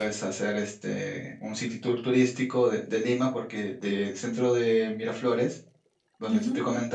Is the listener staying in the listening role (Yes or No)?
Yes